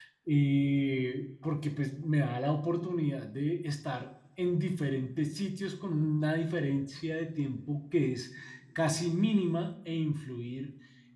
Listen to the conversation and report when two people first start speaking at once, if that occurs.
none

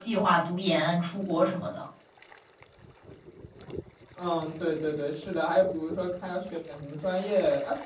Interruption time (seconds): none

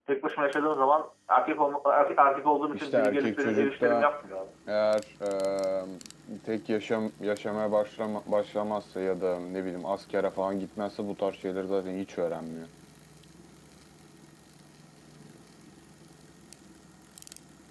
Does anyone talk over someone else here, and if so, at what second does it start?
2.7 s

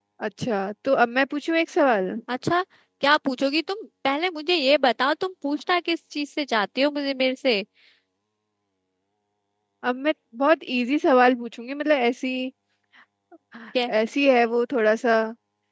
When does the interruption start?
none

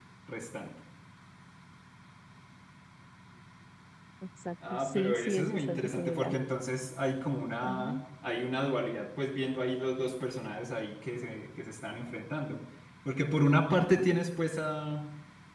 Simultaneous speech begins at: 4.7 s

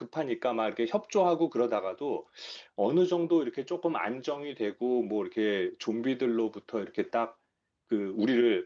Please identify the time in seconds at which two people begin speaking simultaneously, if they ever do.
none

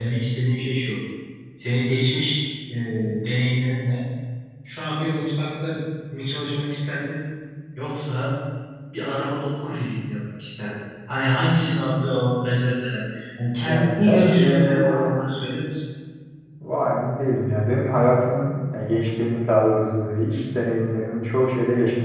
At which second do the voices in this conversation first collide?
13.6 s

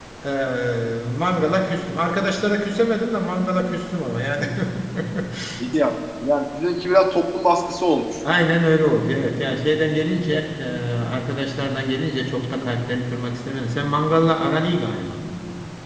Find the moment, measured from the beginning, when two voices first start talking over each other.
none

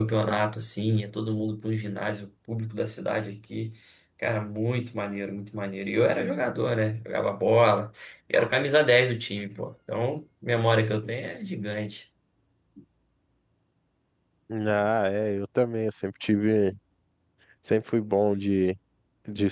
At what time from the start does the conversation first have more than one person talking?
none

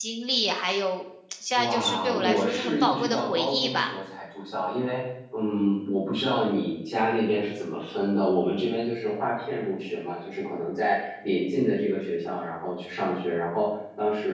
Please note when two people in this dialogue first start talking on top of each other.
1.6 s

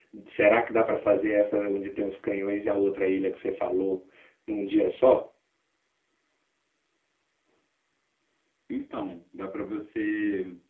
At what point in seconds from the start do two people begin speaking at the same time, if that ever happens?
none

